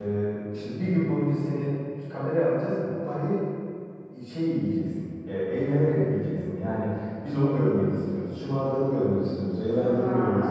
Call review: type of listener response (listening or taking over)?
taking over